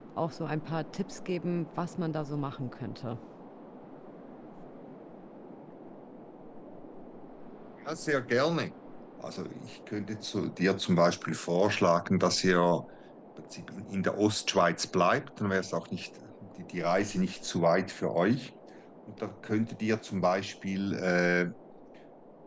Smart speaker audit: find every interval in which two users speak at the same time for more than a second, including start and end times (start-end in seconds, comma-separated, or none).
none